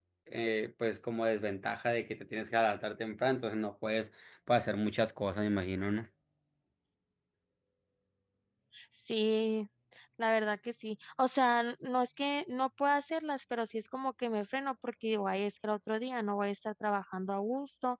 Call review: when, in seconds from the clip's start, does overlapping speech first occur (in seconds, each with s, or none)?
none